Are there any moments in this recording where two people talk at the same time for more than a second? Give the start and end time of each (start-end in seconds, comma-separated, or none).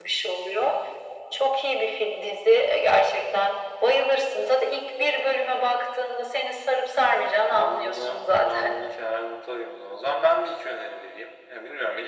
7.5-8.8